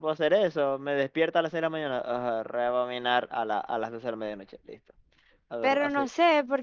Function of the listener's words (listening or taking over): taking over